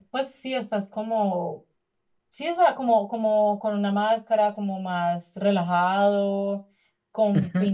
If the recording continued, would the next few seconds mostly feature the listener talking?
No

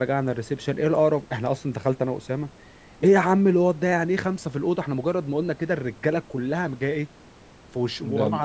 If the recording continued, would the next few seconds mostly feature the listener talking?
No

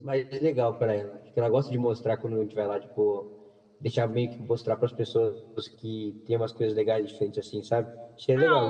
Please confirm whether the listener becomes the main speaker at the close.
Yes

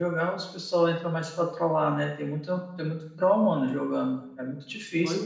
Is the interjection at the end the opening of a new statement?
Yes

